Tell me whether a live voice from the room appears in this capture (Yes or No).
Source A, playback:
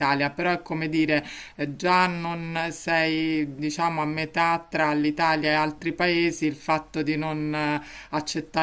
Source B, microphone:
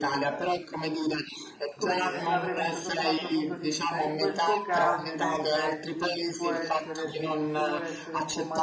Yes